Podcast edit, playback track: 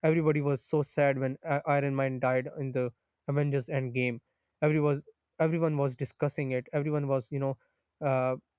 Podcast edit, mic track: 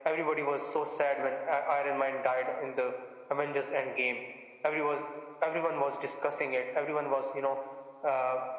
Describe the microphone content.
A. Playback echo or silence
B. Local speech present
A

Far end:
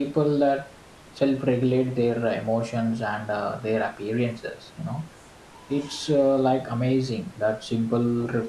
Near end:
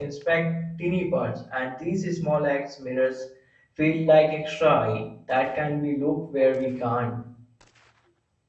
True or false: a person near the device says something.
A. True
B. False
A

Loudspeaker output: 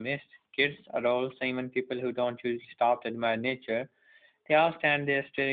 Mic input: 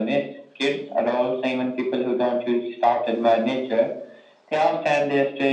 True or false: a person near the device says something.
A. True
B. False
B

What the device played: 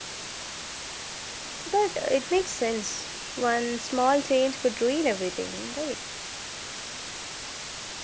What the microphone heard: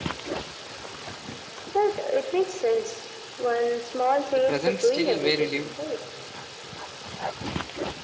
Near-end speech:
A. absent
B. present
B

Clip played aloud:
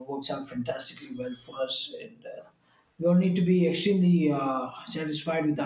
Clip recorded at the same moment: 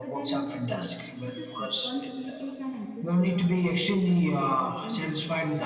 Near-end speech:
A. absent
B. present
B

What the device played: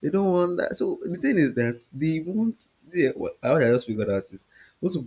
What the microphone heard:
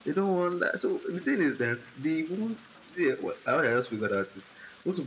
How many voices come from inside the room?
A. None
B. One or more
A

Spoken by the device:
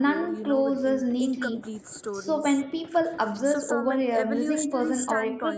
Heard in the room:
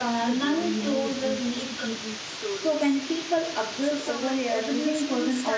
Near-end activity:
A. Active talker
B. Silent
B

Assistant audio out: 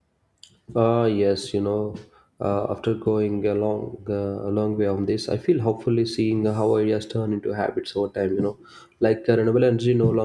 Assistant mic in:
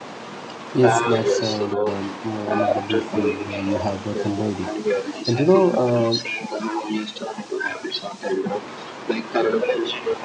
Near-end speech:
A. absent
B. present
B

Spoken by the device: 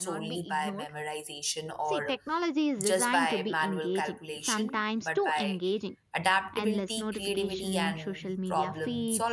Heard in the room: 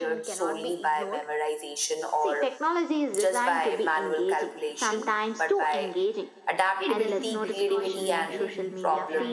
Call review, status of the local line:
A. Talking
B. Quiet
A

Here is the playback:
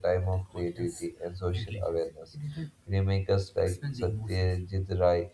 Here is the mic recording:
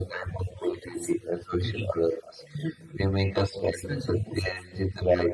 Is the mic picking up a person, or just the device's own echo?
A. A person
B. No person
B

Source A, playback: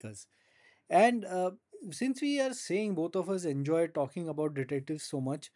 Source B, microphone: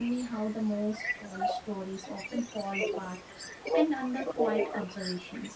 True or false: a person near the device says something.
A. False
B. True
B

